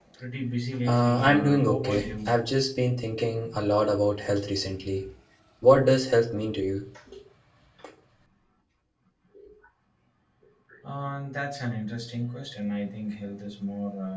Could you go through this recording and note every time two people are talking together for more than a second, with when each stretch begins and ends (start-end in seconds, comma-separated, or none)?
0.8-2.1